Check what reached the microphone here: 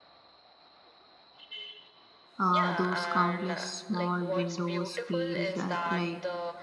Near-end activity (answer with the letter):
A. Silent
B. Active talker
B